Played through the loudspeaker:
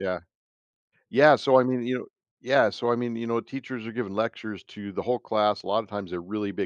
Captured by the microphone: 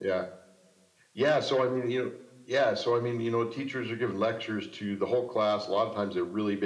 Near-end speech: none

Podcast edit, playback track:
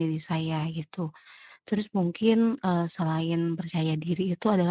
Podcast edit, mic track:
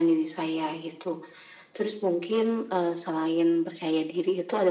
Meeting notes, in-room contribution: none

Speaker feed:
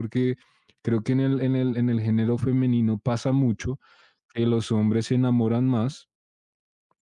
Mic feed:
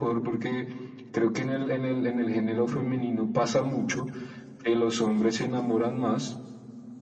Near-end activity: none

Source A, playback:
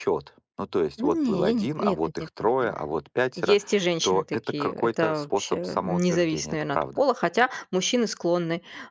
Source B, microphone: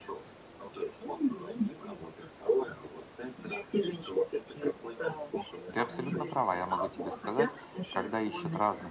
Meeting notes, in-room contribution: present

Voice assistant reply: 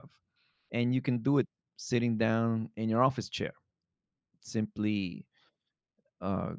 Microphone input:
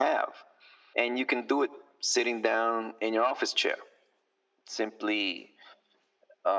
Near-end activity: none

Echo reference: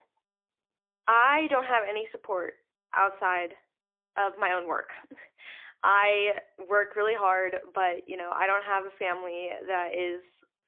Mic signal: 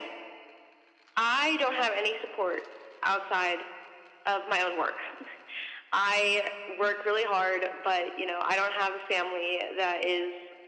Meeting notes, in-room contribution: none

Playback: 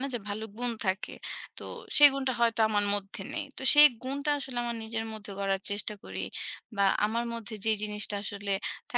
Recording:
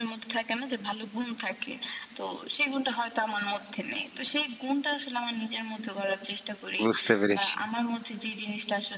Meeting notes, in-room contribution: present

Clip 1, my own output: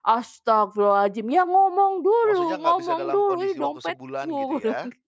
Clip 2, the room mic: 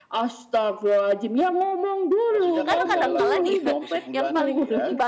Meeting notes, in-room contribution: present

